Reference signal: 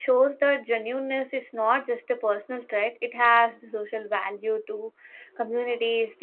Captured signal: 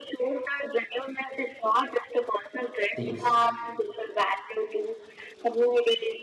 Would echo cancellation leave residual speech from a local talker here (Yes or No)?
Yes